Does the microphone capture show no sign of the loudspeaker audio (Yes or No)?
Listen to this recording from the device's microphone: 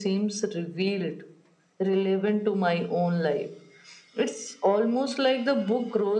No